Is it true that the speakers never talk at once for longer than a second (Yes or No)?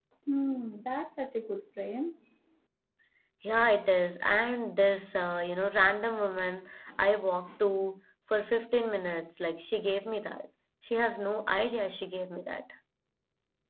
Yes